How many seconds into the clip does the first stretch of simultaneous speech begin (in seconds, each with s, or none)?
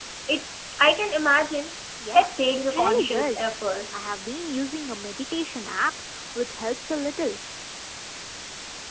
2.1 s